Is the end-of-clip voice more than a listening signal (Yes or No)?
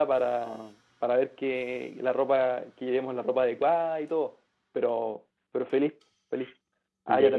No